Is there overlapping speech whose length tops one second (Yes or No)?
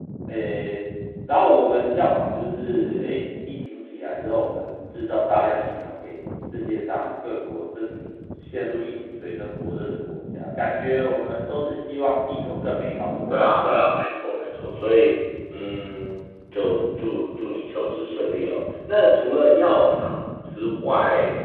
No